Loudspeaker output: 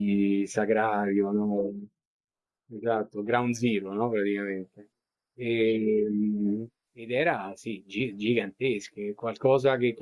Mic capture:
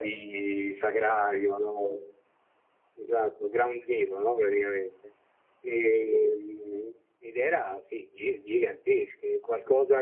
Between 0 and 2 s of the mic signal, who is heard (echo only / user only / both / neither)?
echo only